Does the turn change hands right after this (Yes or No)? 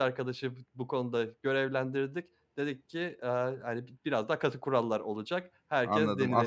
Yes